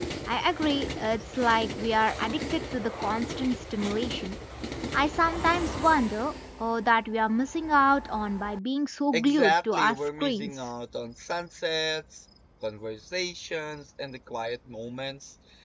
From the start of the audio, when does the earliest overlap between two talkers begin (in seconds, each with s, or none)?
9.1 s